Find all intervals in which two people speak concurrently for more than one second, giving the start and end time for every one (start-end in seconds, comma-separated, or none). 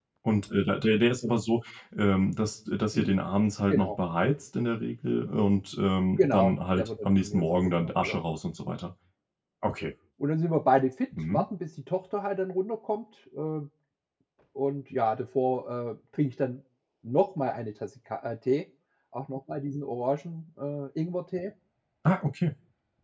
6.2-8.2